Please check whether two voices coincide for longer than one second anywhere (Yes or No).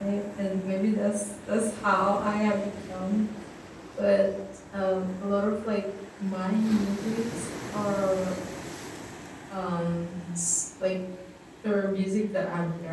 No